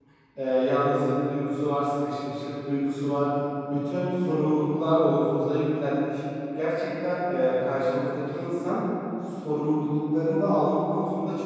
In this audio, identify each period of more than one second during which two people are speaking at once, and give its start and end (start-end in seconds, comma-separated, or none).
none